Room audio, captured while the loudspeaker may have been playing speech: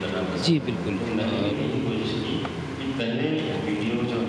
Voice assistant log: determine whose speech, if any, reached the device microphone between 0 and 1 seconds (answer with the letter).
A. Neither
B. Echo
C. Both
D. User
C